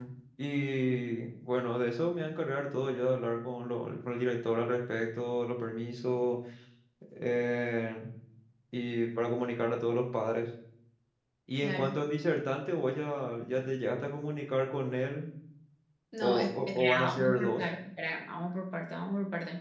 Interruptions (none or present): present